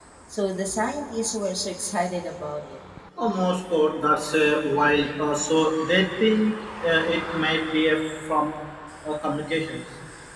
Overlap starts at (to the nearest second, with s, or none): none